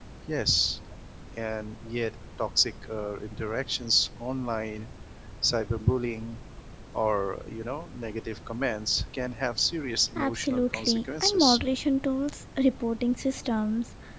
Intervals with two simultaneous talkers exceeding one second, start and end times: 10.2-11.6

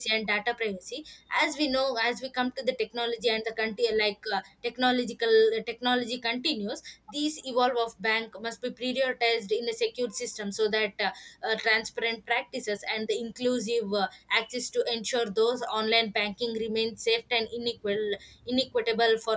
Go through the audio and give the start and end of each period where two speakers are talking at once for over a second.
none

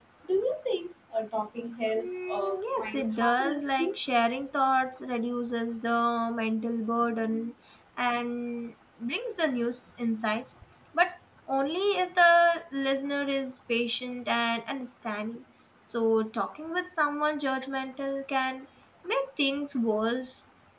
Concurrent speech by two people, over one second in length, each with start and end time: 1.9-4.0

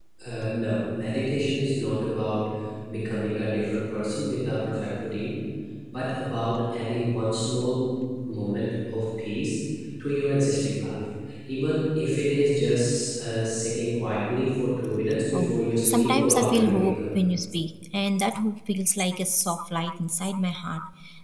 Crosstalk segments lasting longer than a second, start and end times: 15.3-17.0

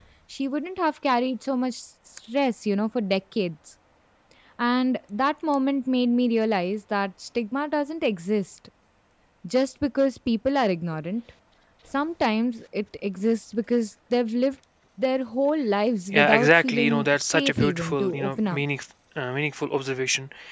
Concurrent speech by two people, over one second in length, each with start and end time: 16.1-18.6

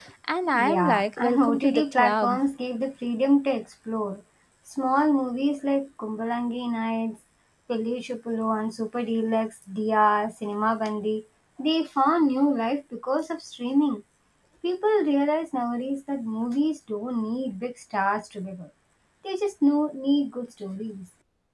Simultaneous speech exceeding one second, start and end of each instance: 0.5-2.4

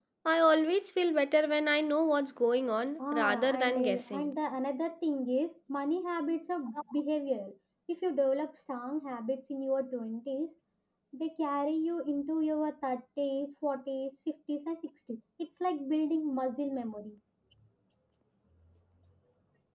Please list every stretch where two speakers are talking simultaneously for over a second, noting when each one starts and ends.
3.1-4.3

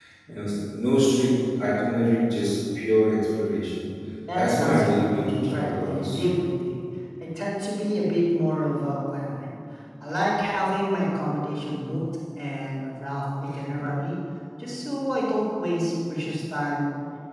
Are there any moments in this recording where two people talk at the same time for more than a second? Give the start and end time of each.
4.3-6.3

